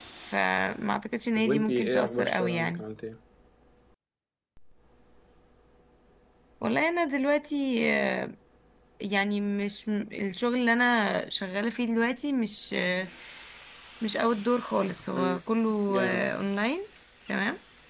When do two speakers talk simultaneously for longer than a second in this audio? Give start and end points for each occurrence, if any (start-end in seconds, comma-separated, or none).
1.4-2.8